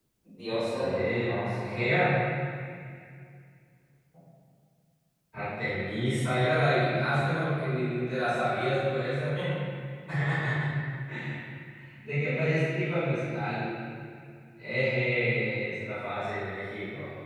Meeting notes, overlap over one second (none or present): present